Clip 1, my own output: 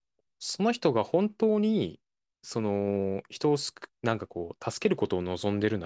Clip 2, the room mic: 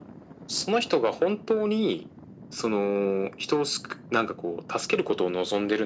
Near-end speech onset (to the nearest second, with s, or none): none